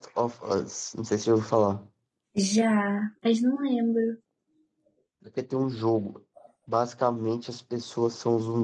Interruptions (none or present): none